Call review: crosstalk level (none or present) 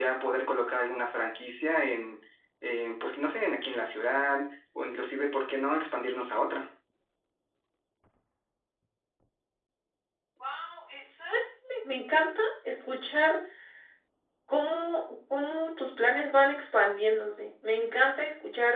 none